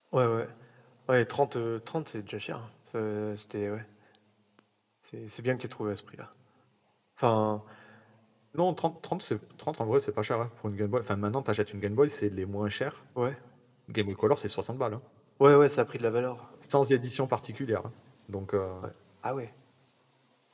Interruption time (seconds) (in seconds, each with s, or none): none